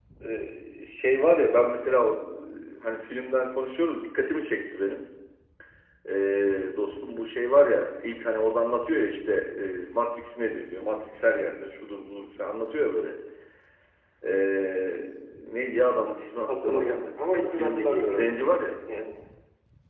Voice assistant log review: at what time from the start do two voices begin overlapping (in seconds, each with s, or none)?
16.5 s